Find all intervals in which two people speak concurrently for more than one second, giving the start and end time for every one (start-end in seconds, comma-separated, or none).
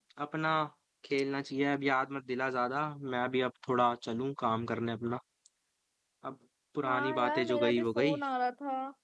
6.8-8.2